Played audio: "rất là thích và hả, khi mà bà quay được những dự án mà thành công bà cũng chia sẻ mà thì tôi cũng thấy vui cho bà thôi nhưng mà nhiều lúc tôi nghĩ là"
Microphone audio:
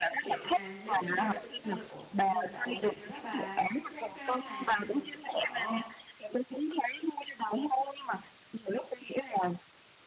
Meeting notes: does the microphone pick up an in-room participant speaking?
Yes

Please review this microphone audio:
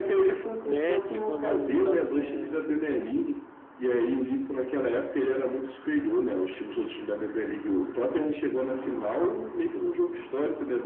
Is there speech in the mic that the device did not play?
Yes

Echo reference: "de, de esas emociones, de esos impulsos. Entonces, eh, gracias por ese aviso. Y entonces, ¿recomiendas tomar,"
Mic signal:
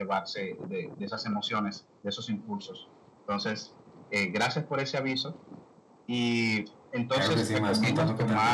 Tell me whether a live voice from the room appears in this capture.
Yes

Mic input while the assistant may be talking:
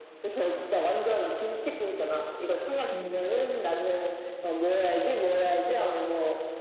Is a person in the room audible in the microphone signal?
Yes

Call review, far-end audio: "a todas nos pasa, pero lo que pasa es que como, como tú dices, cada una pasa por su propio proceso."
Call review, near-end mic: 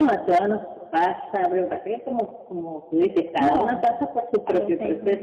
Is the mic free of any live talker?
No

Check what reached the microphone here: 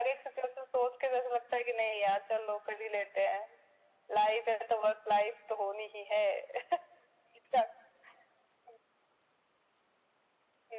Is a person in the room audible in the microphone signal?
No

